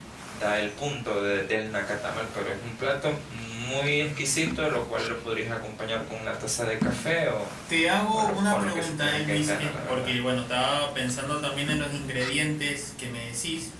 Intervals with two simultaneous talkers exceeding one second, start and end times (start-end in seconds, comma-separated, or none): 8.1-10.1